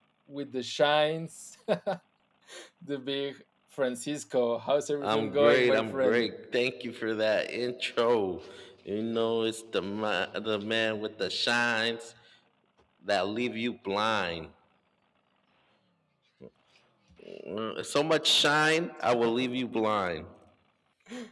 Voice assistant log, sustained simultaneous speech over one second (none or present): present